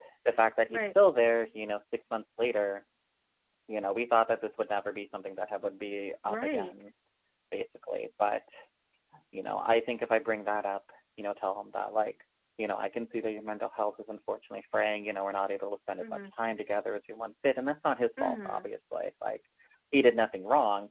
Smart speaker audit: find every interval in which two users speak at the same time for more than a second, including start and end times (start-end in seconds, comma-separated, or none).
none